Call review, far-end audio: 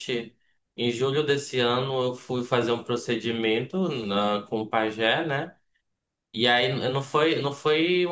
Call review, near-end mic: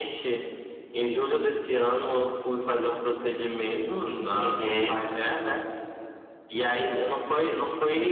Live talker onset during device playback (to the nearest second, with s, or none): 4 s